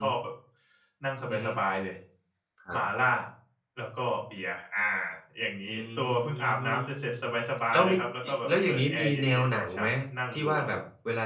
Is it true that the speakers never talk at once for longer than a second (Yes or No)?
No